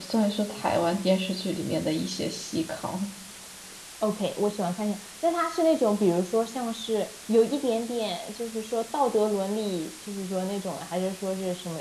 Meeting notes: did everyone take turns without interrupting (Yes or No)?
Yes